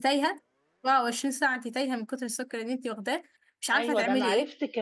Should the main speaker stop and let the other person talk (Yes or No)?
Yes